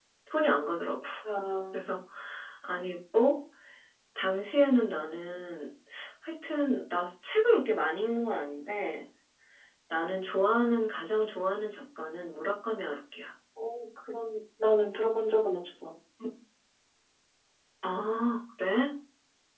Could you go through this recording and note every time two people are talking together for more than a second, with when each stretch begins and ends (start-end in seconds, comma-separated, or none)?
none